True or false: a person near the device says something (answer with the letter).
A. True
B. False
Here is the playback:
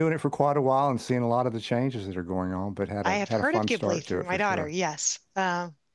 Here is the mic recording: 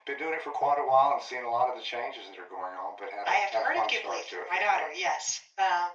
B